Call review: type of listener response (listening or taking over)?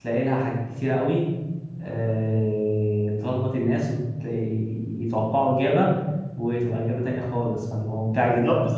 taking over